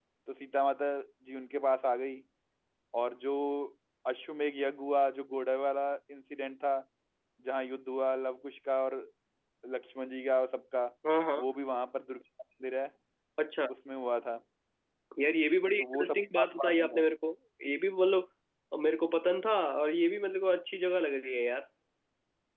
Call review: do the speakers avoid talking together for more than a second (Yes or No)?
No